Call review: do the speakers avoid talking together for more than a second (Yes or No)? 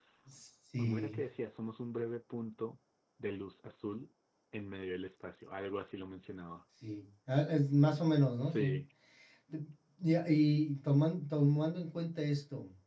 Yes